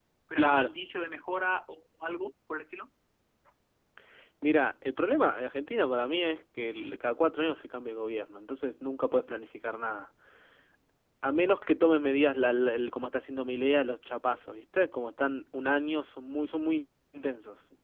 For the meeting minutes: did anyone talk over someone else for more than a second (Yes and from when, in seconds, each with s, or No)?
No